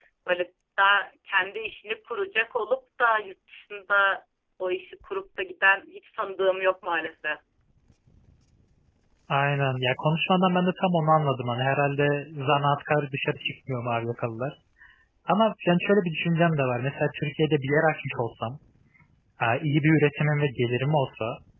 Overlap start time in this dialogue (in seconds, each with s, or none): none